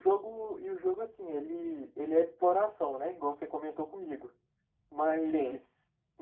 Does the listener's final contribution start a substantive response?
No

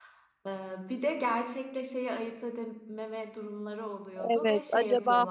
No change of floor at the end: No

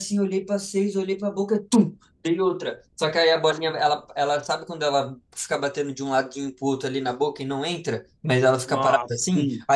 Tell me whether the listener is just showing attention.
Yes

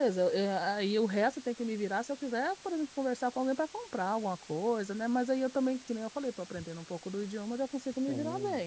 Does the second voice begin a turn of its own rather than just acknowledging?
Yes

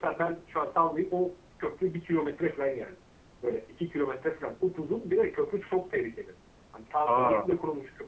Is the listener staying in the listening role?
Yes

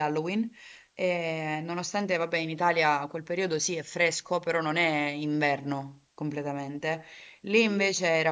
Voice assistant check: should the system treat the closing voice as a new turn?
No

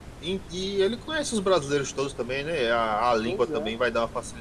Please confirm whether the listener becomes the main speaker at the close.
No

